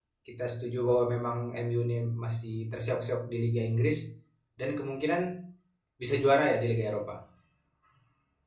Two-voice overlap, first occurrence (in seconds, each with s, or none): none